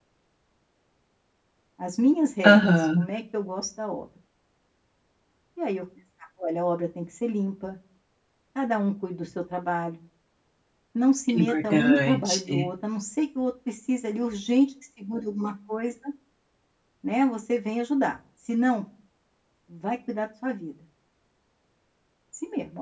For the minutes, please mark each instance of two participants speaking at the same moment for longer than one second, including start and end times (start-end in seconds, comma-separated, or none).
11.3-12.6